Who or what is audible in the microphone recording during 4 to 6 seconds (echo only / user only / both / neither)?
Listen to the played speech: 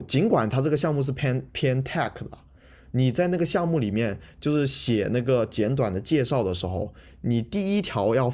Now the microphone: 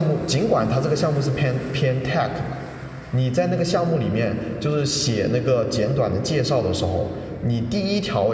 echo only